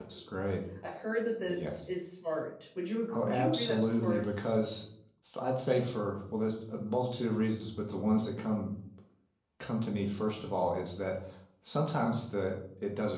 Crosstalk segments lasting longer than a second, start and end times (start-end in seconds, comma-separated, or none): 3.1-4.5